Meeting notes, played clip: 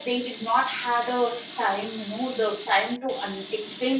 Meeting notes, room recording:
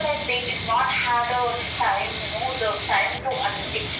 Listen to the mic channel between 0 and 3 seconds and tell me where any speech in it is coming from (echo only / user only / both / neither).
echo only